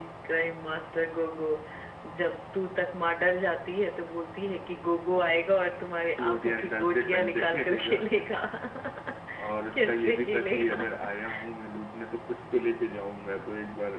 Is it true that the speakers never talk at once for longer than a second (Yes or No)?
No